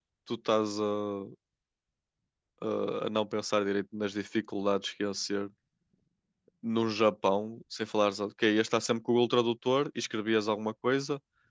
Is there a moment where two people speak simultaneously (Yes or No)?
No